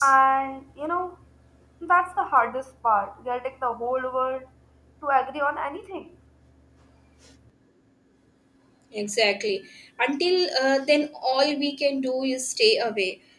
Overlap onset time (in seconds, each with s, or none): none